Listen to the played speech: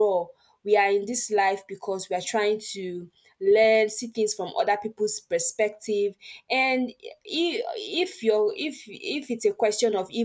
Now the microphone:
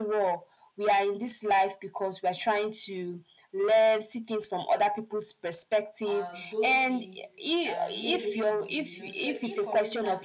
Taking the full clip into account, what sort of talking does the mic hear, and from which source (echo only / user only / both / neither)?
both